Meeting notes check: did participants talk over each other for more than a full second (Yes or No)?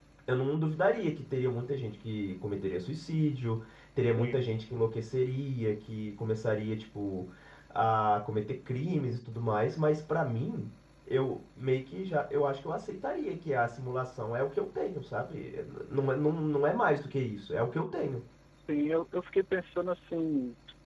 No